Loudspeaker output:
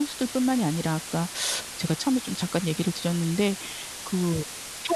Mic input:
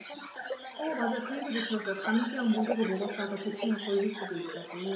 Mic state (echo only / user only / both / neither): both